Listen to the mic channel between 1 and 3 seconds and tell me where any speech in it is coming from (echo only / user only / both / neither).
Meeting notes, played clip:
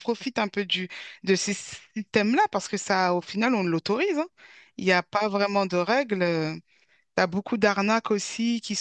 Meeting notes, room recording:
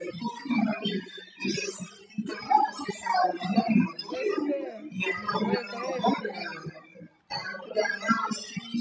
echo only